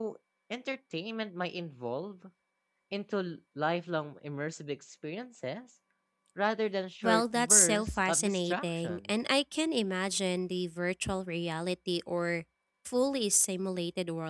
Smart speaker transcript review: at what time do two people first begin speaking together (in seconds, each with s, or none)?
7.0 s